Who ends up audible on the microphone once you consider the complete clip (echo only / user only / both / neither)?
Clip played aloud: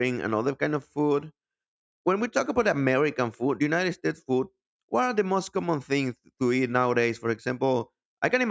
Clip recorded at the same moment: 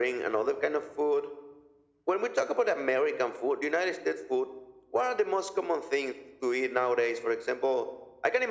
echo only